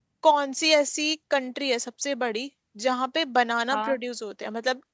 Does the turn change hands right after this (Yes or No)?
No